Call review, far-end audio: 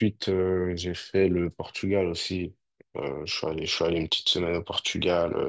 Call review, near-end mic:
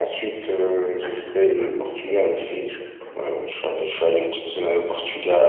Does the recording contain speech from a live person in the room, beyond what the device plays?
Yes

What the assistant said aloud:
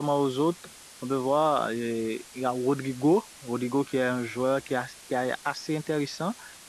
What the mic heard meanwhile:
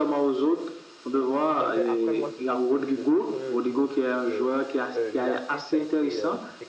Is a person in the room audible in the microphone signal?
Yes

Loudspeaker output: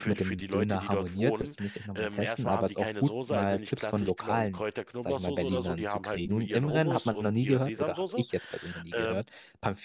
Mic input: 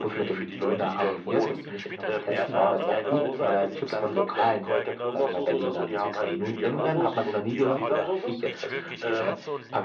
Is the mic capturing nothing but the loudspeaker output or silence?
No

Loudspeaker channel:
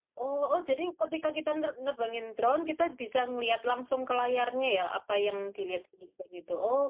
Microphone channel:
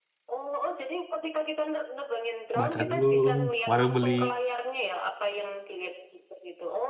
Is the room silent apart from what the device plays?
No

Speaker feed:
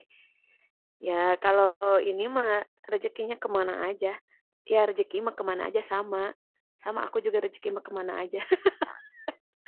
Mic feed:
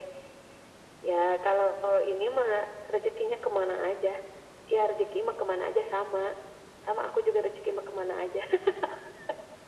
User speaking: No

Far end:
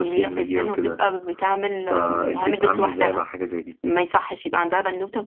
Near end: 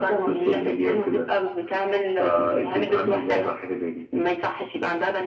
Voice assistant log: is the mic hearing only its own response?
Yes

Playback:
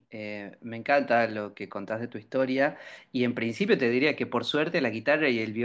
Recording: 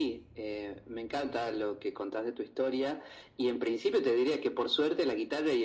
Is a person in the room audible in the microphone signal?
No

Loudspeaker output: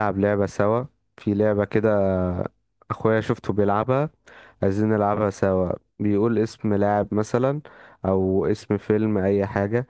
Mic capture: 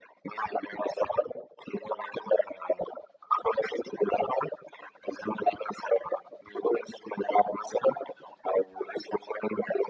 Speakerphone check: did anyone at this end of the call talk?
No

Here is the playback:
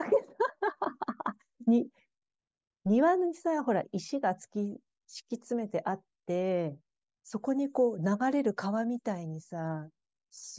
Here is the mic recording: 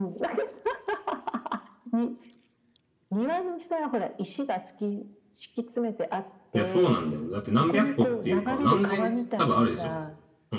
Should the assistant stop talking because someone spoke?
Yes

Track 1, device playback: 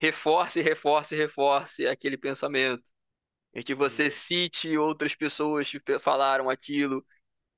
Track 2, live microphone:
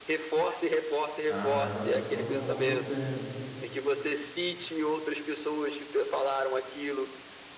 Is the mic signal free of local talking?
No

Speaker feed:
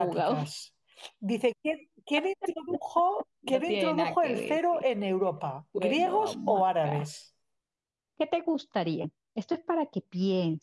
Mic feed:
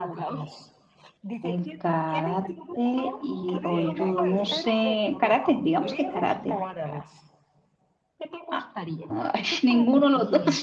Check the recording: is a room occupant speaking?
Yes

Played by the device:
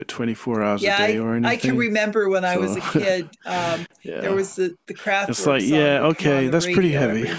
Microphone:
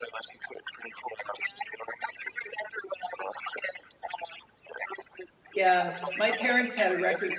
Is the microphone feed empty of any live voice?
No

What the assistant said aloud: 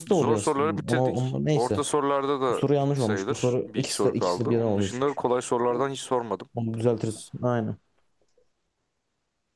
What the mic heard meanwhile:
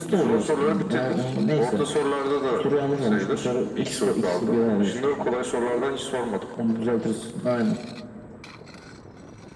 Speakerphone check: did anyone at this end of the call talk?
No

